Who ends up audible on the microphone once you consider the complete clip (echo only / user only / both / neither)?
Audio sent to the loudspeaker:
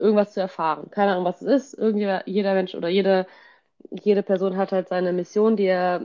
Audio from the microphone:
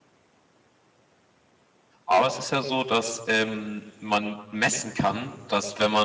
user only